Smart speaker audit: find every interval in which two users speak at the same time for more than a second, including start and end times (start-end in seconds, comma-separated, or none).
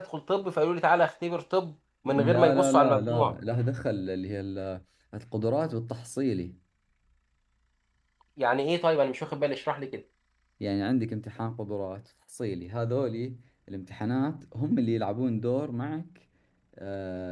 2.0-3.4